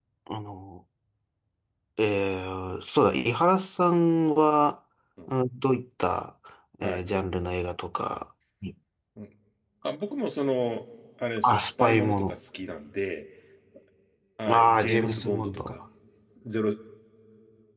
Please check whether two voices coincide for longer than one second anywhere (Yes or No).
Yes